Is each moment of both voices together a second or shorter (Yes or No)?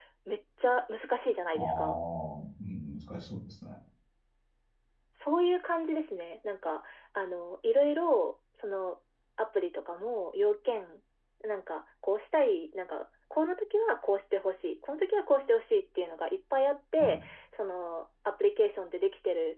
Yes